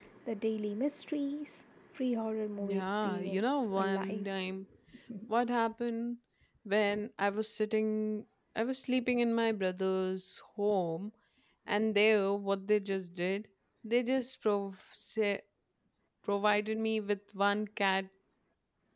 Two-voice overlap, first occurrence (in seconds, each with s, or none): 2.6 s